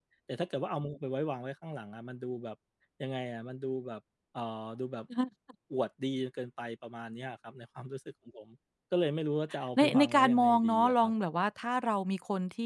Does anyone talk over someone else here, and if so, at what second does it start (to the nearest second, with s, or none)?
10 s